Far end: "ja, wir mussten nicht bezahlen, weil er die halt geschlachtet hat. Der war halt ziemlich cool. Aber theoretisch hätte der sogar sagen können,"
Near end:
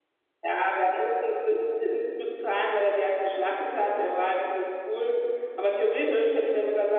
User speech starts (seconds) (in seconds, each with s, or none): none